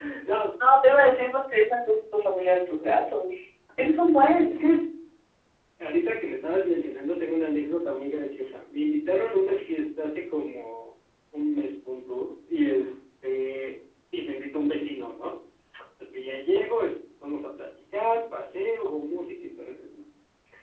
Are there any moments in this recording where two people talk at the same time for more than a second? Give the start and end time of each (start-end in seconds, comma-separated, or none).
none